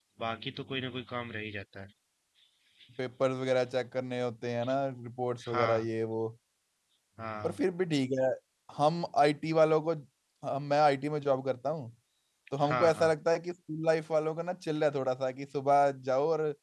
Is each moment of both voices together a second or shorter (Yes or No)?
Yes